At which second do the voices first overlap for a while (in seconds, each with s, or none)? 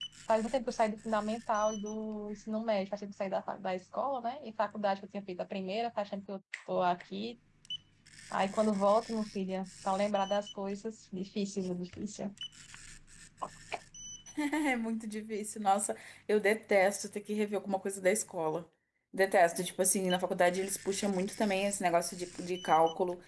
none